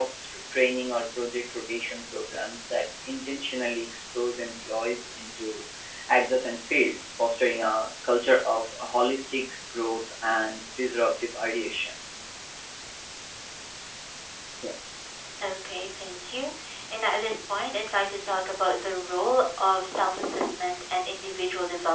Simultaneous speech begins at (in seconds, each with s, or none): none